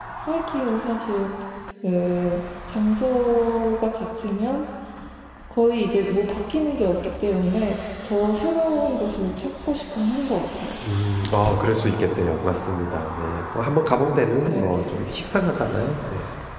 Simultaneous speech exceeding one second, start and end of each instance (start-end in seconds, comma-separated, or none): none